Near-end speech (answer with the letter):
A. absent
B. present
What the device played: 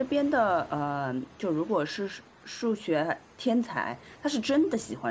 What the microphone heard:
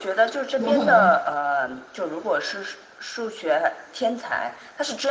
B